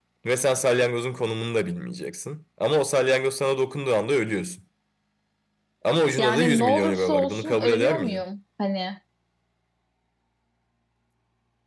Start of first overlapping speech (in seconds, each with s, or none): 6.2 s